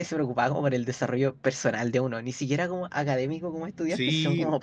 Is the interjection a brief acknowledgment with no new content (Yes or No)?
No